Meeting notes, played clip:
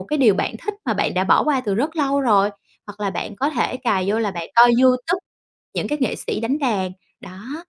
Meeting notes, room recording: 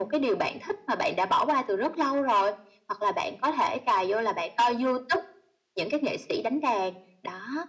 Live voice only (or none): none